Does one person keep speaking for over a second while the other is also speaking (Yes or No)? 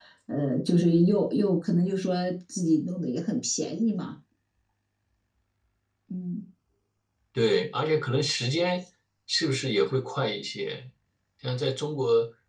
No